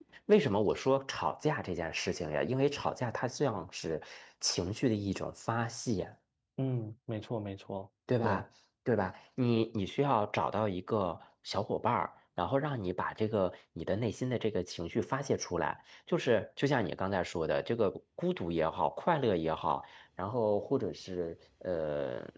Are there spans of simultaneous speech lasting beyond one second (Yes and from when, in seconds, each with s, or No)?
No